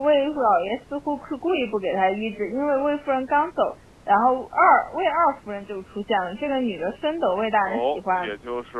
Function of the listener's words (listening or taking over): taking over